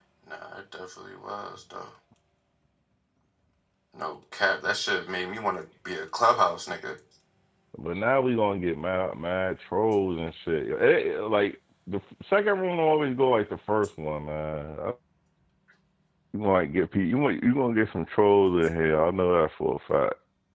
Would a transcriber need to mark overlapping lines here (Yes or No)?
No